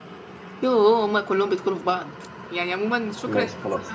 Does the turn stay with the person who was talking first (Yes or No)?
Yes